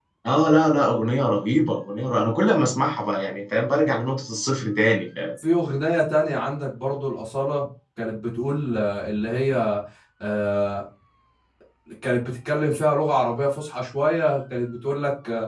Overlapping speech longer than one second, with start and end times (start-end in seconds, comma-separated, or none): none